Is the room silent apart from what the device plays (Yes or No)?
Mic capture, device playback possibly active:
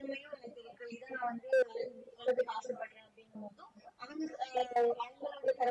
Yes